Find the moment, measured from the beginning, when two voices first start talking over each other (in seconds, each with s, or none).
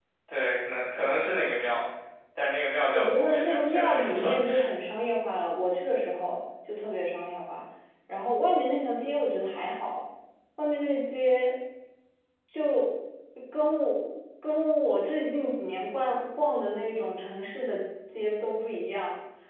2.9 s